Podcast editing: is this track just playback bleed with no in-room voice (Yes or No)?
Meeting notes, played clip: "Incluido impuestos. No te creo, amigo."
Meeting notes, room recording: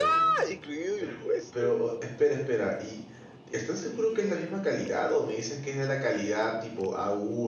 No